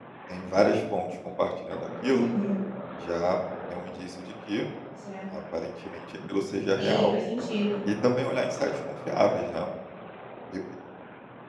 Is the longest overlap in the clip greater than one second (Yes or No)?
No